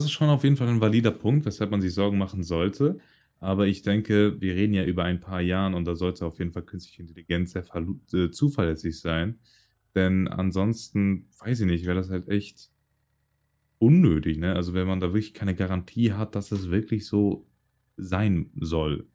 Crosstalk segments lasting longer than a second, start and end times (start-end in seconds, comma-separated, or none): none